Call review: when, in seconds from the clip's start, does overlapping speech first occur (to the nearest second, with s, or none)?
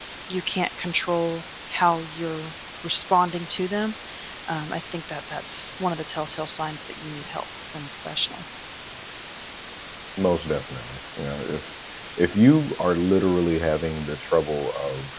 none